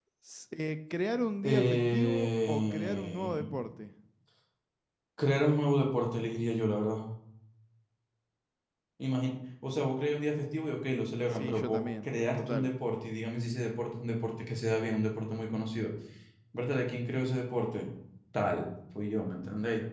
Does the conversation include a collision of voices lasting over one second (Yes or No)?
Yes